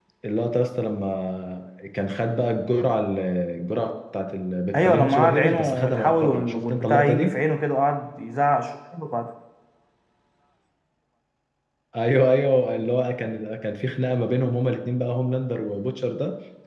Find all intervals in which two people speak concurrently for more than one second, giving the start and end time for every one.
4.8-7.3

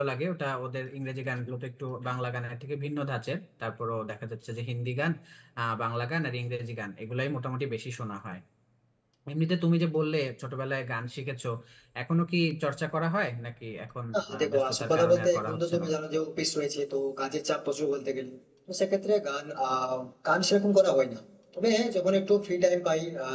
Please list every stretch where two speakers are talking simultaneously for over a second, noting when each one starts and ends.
14.1-15.9

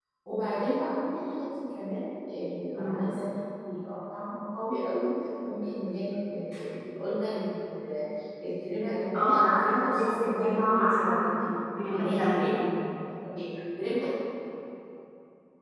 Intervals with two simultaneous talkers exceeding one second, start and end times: 9.1-11.2

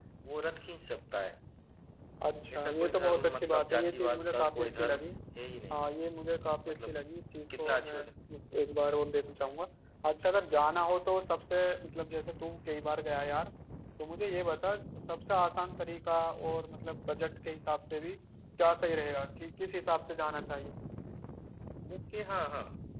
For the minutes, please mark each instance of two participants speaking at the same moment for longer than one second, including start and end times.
2.5-5.0

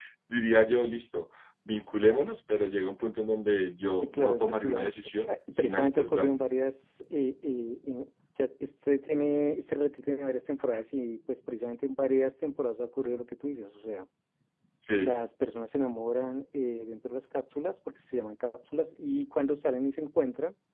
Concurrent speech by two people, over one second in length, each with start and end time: 4.0-6.4

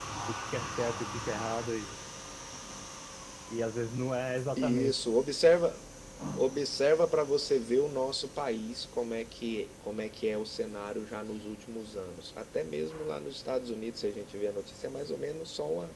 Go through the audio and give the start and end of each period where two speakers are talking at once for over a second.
none

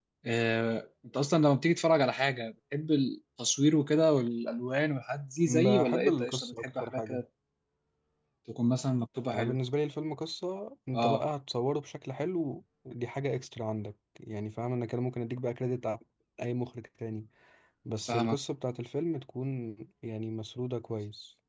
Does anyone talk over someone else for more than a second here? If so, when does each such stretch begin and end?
5.6-7.2

